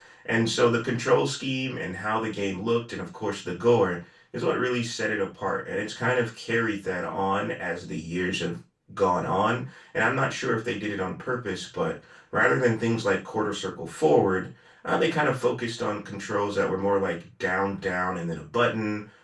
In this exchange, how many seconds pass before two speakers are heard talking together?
none

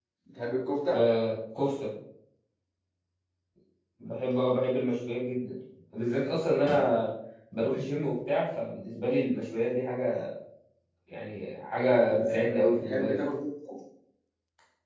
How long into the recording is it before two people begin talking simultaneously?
11.9 s

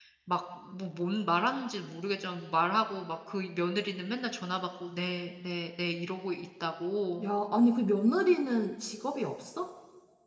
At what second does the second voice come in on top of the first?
none

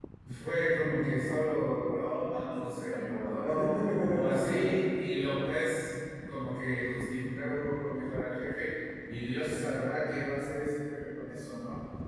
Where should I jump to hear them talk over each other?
2.5 s

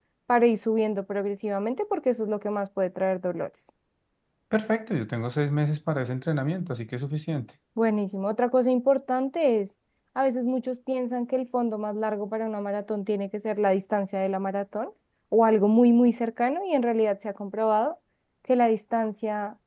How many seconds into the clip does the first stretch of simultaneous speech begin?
none

